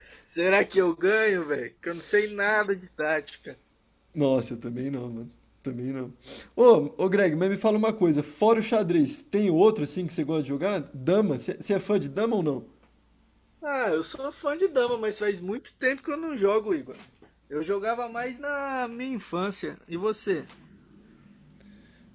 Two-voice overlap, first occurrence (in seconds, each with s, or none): none